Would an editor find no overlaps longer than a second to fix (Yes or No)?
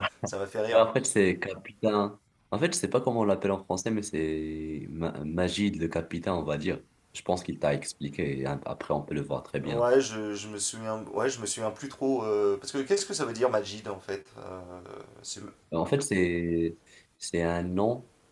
Yes